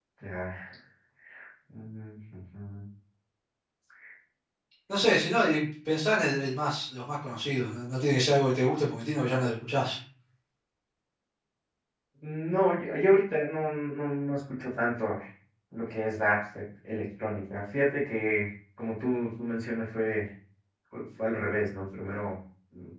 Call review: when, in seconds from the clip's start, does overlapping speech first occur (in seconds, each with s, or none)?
none